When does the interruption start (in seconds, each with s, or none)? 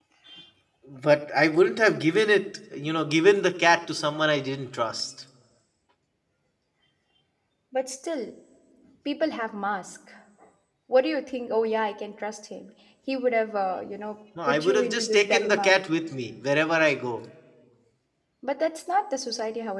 14.4 s